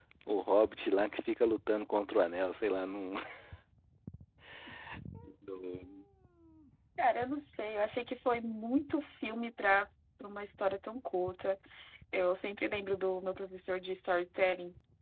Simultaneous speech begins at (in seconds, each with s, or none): none